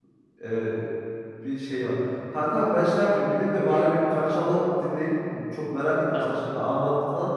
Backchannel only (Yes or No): Yes